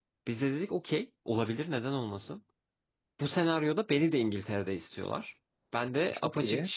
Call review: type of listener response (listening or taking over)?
listening